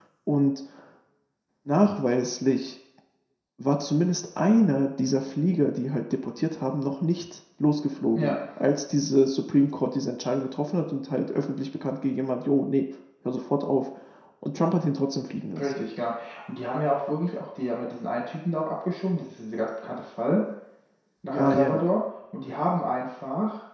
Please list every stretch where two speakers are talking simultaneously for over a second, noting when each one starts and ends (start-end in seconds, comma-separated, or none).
none